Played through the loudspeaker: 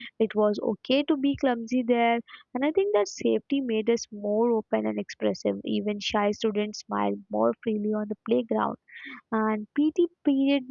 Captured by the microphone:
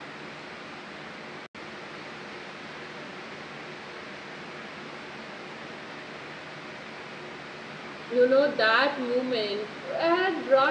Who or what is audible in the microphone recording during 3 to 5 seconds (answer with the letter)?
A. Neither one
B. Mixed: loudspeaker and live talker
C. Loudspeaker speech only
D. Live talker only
A